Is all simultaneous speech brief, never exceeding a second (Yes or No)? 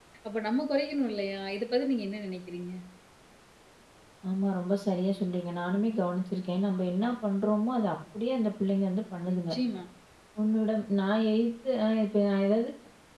Yes